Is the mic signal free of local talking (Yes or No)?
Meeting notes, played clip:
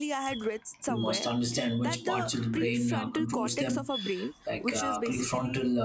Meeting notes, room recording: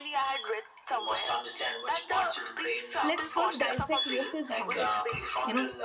No